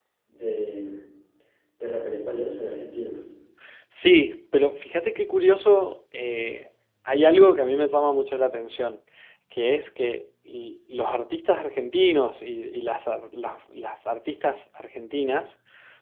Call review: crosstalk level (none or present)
none